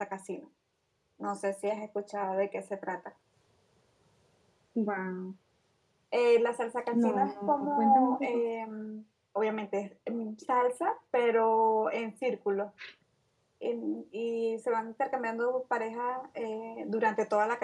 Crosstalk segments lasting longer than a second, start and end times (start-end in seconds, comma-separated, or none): 6.9-8.4